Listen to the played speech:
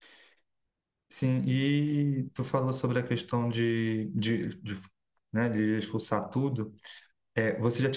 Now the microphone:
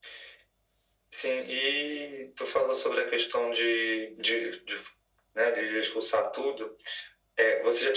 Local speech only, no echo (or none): none